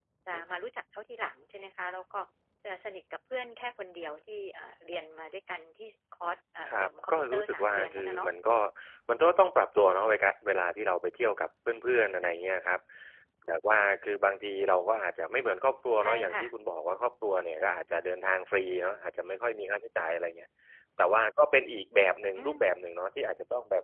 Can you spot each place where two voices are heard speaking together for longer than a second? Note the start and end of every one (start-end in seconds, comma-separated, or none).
6.7-8.6